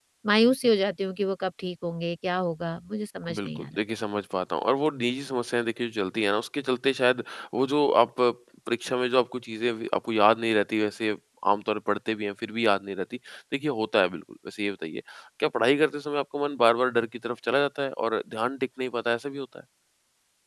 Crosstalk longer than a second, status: none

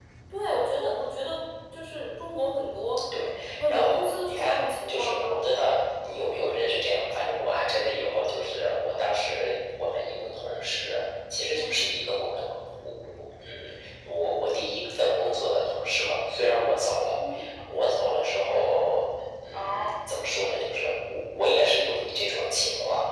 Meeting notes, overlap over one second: present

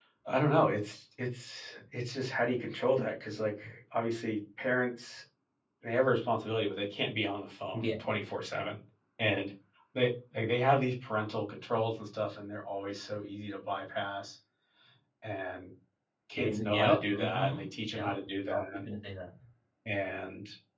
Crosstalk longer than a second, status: present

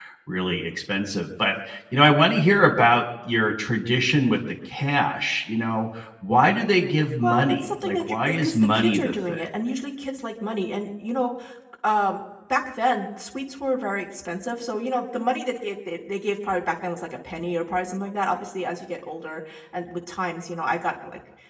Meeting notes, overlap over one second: present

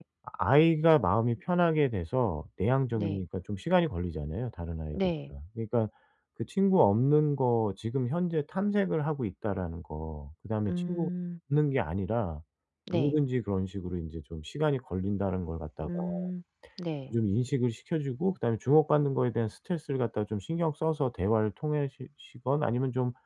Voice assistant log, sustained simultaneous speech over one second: none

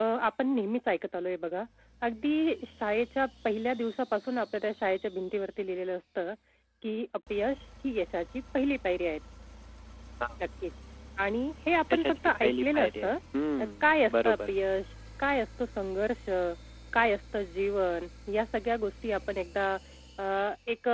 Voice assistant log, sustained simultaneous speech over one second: present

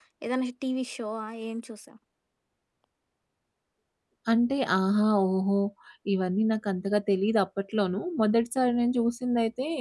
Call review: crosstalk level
none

